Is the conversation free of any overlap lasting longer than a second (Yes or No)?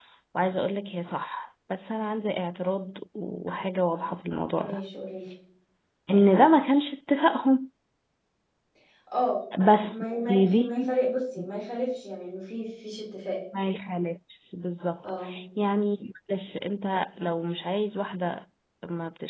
No